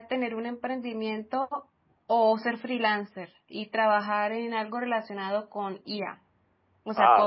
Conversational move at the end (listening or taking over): listening